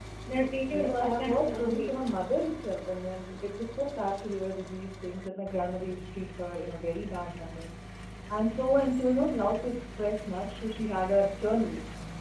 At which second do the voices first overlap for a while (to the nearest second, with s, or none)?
1 s